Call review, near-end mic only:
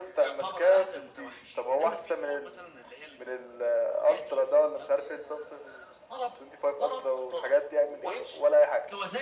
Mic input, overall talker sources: both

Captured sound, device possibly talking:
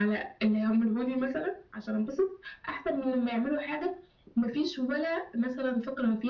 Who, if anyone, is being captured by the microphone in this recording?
echo only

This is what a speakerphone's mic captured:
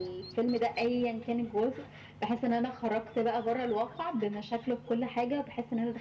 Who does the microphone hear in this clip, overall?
echo only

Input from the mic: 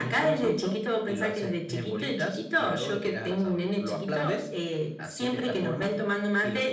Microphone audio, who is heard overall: echo only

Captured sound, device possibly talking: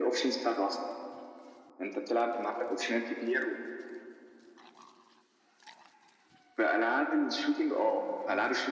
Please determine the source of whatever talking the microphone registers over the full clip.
both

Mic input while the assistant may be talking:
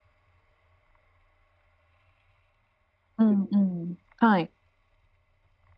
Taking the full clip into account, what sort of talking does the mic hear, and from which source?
user only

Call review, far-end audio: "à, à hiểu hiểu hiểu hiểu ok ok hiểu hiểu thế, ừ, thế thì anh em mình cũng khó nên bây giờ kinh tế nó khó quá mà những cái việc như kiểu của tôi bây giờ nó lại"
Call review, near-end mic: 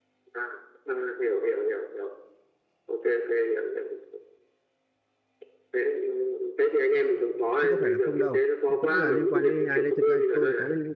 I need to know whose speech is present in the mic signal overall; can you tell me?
both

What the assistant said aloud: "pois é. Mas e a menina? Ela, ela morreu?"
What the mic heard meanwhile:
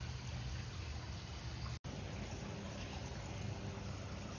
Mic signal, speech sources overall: neither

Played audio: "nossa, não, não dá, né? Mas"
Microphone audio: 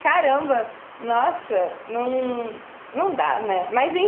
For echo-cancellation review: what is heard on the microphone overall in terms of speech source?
echo only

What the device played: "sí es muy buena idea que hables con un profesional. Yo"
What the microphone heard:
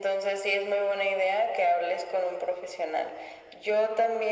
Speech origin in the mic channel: echo only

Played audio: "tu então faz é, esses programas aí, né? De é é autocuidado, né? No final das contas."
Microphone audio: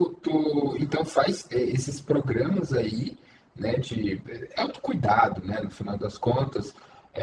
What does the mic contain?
echo only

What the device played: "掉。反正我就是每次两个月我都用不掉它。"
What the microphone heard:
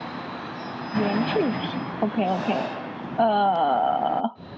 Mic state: user only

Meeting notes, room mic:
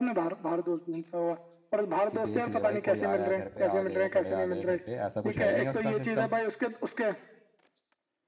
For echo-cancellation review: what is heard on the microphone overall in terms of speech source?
both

